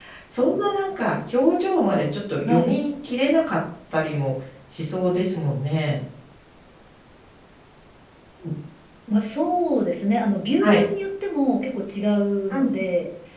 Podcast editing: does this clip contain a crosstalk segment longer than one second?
No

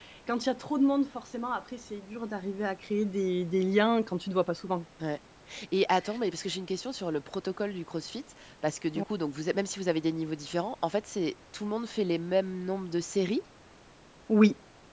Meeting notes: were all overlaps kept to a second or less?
Yes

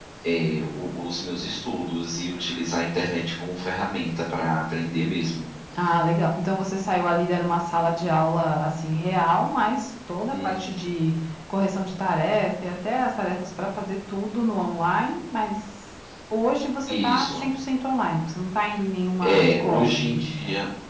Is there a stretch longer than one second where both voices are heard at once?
Yes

